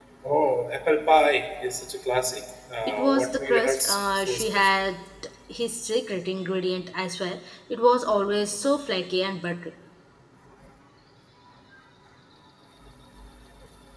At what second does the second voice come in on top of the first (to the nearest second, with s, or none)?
3 s